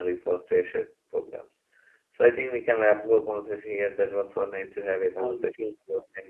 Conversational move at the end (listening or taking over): listening